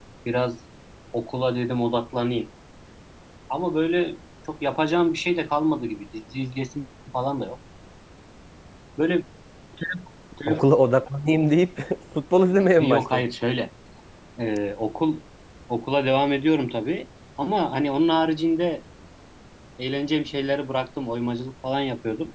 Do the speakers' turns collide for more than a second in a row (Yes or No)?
No